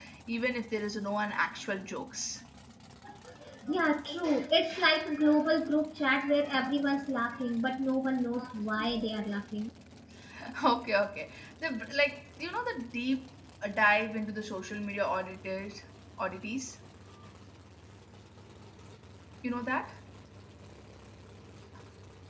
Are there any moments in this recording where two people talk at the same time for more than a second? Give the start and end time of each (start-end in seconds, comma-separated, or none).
none